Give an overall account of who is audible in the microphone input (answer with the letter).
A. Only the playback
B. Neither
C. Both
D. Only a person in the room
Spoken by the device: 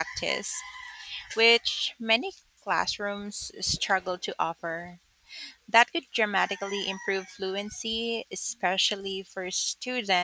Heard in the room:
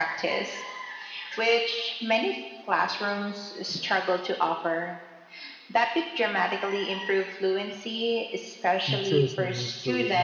C